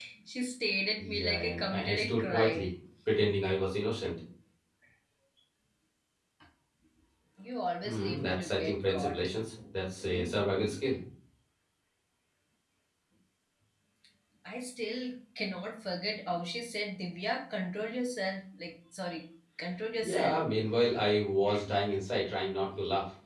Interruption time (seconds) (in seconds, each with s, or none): 1.0 s